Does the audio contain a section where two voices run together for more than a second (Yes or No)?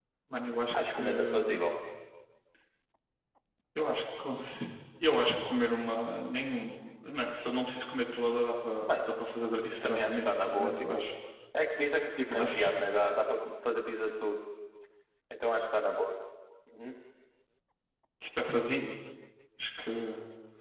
Yes